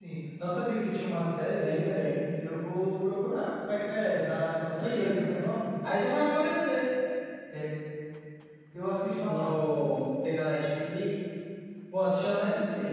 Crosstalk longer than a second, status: none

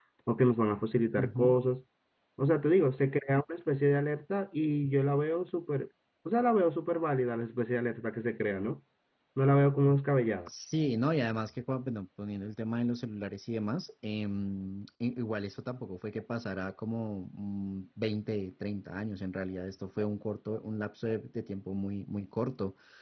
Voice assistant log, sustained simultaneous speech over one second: none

